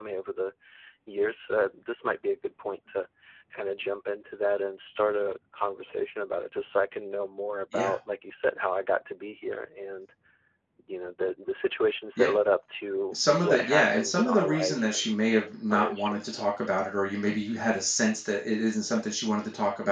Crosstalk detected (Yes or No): Yes